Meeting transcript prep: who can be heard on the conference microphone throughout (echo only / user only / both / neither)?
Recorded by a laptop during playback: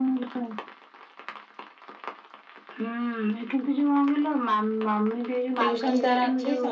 both